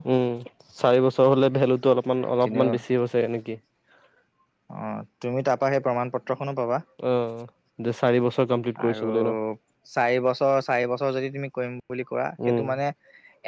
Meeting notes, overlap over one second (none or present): none